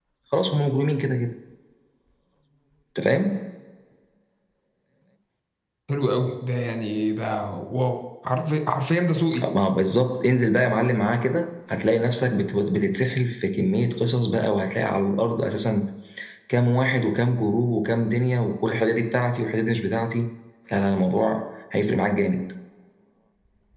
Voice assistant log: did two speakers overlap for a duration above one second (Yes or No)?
No